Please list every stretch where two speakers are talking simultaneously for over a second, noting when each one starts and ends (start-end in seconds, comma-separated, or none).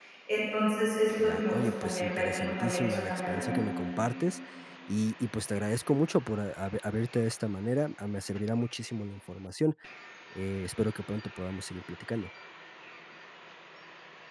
1.2-3.6